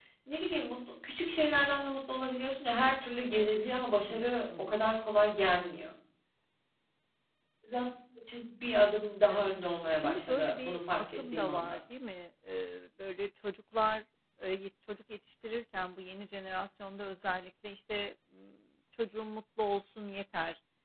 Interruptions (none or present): present